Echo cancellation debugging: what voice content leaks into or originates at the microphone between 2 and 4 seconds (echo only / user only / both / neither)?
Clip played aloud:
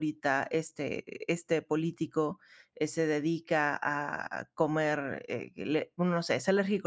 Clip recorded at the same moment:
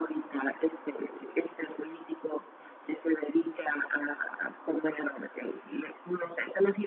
echo only